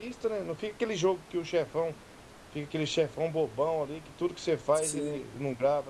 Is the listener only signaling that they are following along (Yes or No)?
Yes